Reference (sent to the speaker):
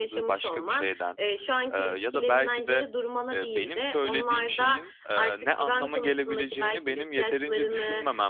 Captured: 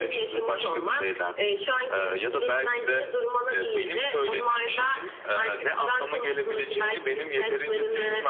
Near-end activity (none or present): none